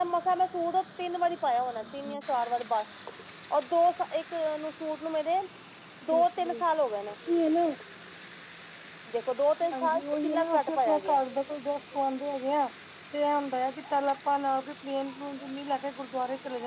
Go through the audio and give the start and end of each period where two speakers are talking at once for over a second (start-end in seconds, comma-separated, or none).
9.7-11.2